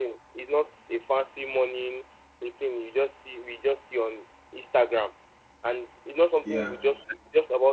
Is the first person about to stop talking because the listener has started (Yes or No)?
No